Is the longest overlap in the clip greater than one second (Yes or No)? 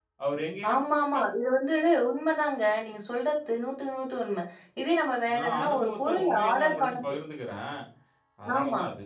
Yes